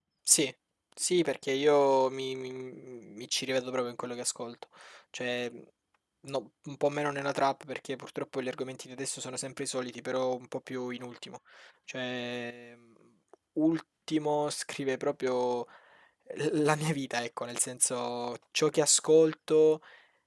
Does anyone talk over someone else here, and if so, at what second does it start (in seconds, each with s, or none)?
none